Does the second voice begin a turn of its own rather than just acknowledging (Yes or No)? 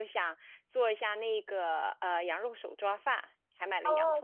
Yes